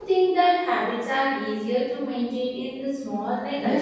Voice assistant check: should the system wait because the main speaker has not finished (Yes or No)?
No